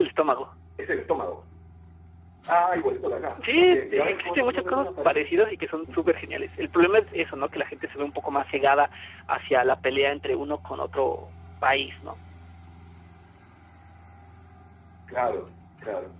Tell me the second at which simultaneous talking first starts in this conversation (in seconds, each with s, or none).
3.4 s